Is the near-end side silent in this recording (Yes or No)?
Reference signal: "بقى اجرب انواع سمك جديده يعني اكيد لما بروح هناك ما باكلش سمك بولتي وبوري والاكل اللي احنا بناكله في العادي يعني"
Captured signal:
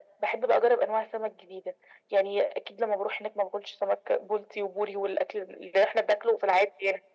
Yes